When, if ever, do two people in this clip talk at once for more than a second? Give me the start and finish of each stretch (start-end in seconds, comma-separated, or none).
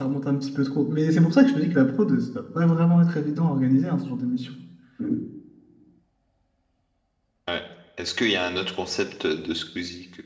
none